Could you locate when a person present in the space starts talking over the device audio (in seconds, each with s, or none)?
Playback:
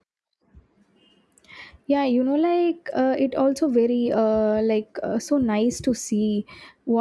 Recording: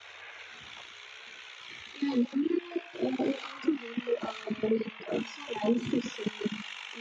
none